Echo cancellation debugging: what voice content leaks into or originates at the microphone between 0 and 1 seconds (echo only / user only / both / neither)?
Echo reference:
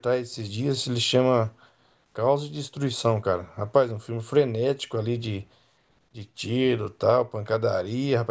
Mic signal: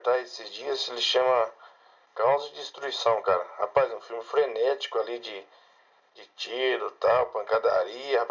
echo only